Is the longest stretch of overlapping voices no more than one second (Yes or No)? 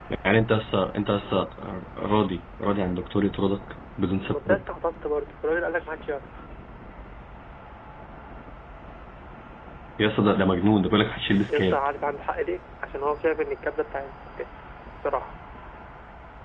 Yes